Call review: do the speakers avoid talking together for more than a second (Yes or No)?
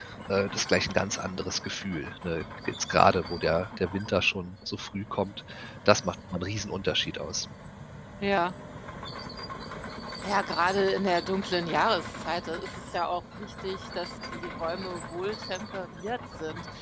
Yes